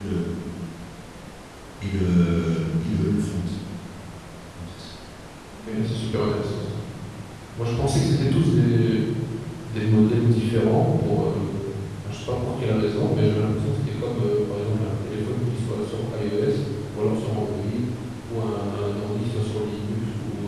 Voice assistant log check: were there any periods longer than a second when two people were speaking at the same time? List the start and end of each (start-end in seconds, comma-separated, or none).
none